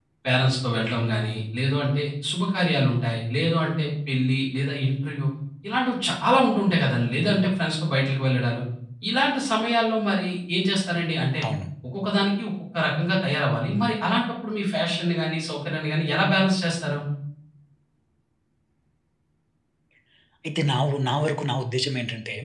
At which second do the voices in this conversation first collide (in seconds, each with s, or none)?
none